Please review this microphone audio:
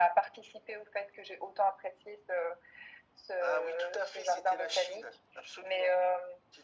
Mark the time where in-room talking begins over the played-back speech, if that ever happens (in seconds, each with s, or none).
none